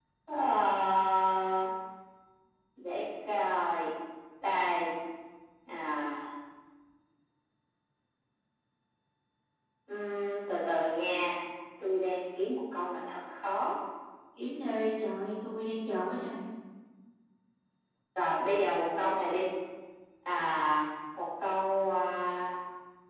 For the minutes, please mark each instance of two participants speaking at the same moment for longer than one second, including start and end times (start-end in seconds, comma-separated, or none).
none